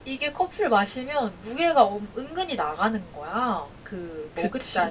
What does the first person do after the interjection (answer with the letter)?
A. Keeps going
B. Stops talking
A